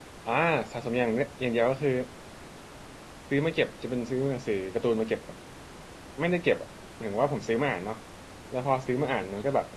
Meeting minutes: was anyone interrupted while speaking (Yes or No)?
No